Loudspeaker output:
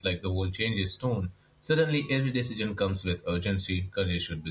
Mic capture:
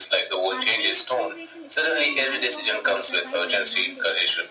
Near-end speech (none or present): present